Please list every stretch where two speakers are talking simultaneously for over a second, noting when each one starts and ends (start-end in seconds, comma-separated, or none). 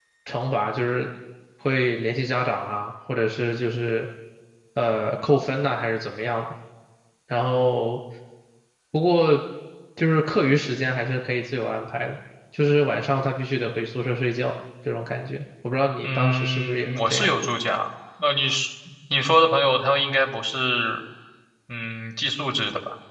16.0-17.3